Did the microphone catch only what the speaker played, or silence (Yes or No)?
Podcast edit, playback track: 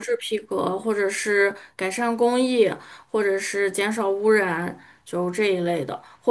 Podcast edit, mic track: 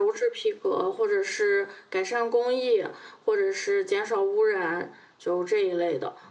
Yes